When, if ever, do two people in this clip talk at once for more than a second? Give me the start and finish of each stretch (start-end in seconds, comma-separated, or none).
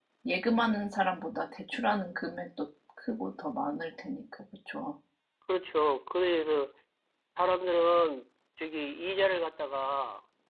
none